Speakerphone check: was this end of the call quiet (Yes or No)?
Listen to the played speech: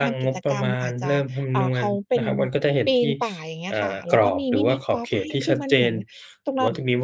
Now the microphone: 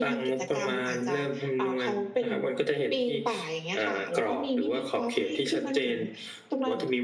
Yes